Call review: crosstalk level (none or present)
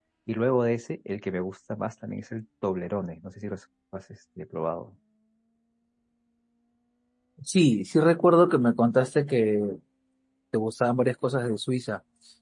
none